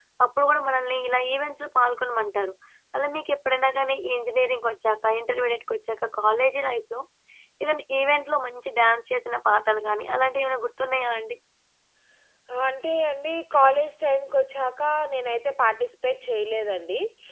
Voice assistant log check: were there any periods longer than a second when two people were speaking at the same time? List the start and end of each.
none

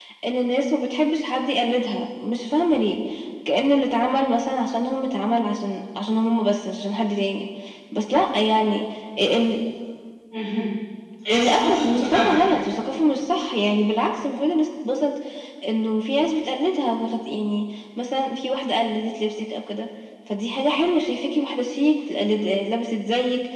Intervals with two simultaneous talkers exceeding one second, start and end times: 11.3-12.6

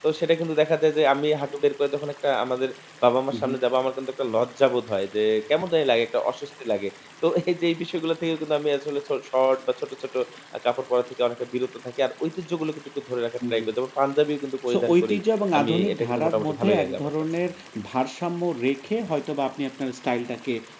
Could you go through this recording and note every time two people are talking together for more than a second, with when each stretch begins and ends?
15.6-17.1

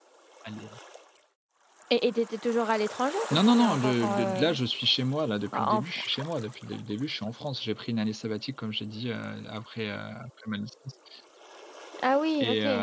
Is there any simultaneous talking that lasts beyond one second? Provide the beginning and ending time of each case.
3.3-4.6

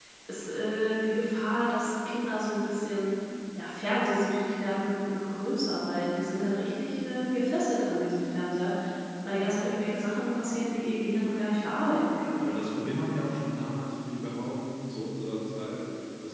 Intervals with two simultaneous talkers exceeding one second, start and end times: none

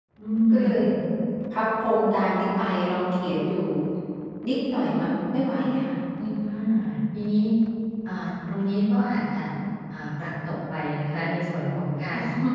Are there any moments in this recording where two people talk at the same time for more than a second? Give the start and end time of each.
none

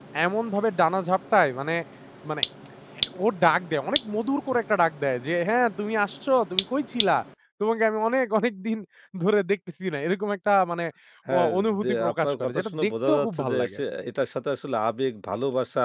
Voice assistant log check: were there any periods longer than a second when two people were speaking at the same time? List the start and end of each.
11.3-13.8

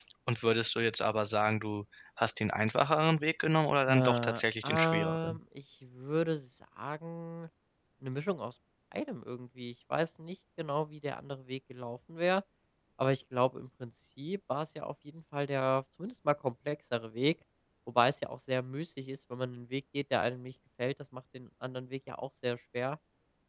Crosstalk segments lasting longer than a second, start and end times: 3.9-5.4

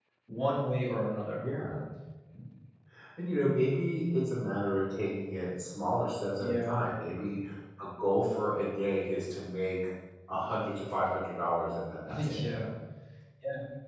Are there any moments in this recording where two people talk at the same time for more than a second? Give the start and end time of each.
none

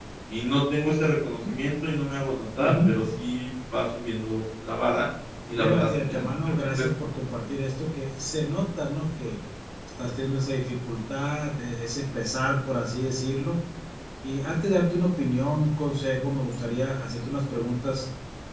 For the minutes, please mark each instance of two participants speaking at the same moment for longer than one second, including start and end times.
5.5-6.9

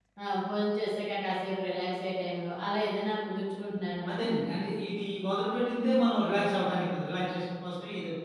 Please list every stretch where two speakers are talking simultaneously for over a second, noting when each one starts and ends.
none

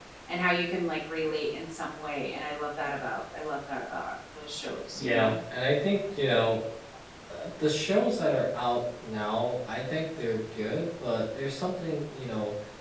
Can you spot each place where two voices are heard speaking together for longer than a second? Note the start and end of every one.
none

